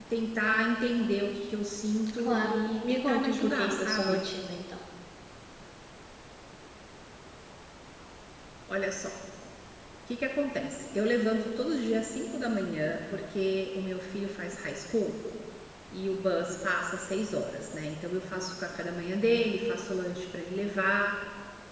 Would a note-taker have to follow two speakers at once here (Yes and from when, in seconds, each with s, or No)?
Yes, from 2.2 s